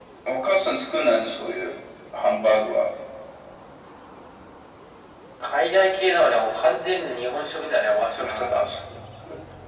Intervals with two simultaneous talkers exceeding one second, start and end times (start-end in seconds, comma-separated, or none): none